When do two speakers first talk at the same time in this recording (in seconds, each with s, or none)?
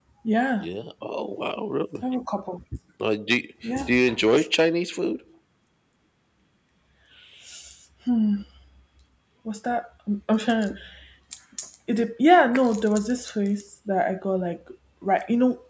none